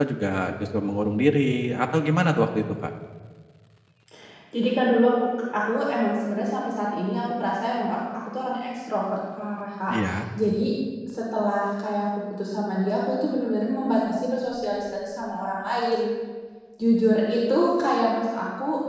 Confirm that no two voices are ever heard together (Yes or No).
Yes